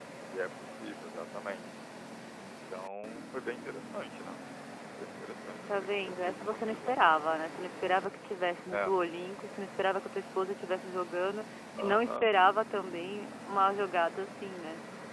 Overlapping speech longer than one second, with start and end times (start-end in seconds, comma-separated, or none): 5.7-6.9